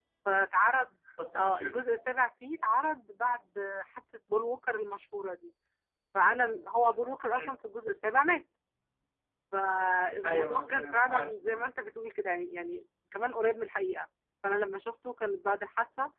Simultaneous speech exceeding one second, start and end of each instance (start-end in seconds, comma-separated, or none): 10.3-11.6